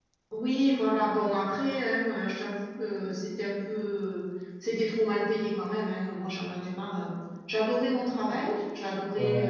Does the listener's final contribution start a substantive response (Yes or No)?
No